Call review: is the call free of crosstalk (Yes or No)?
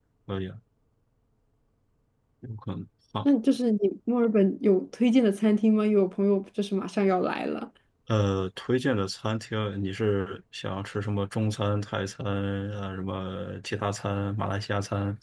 Yes